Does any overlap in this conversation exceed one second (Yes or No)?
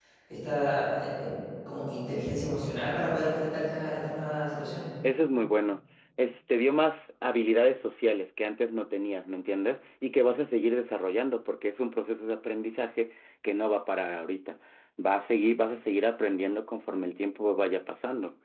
No